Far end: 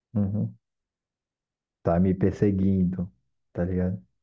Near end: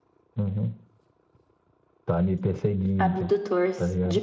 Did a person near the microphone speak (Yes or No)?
Yes